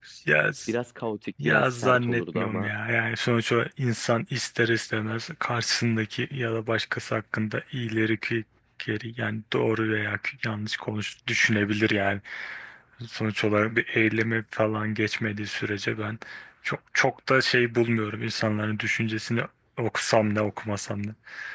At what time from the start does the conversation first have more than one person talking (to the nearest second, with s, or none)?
1 s